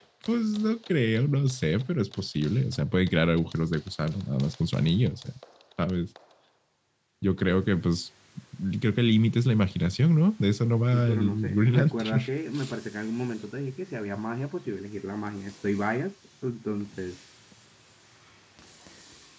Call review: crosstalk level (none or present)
present